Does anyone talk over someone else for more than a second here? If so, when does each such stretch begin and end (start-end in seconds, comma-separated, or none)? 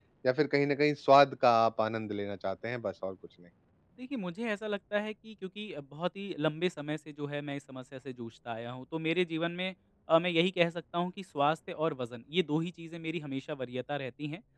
none